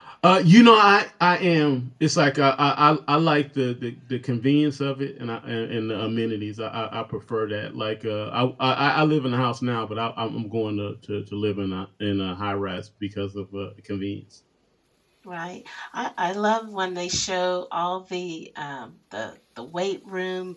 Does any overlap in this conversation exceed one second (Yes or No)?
No